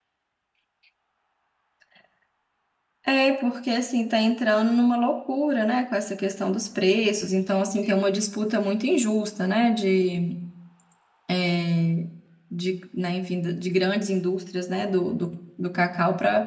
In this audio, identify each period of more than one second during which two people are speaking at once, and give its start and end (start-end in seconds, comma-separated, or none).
none